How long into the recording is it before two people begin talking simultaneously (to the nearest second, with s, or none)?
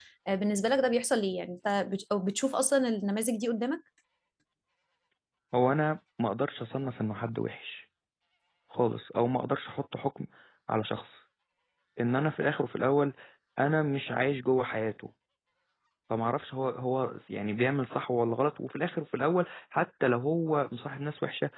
none